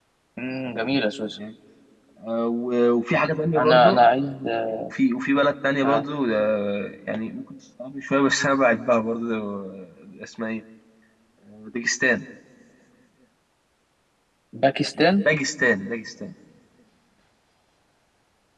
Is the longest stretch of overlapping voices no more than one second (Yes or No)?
Yes